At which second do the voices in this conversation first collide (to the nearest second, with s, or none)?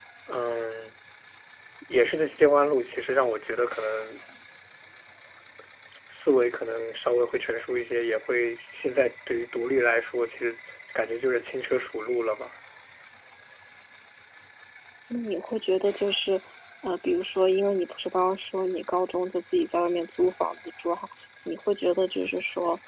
none